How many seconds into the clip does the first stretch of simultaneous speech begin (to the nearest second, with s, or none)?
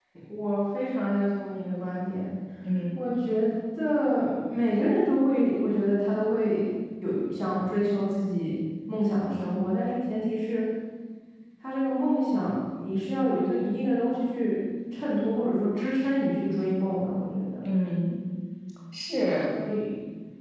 none